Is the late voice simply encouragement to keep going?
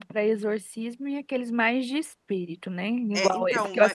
No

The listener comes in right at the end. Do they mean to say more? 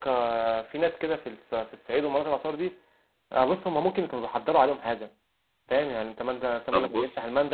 No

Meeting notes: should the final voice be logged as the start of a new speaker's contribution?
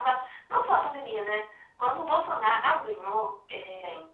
No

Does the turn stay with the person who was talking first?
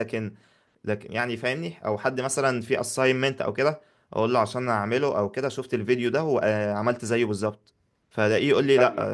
Yes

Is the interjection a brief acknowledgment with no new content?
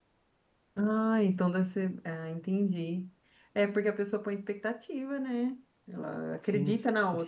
No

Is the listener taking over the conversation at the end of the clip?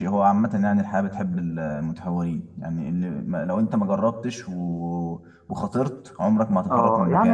Yes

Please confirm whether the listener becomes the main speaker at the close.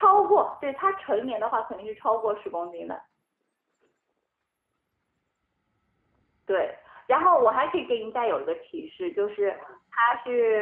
No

